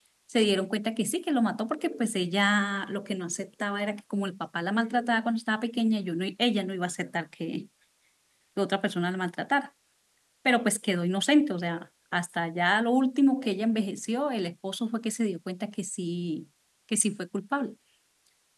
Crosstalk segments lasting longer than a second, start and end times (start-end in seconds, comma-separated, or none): none